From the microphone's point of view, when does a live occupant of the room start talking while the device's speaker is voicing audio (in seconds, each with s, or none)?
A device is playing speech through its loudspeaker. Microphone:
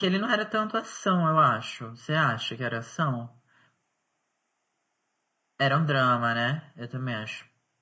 none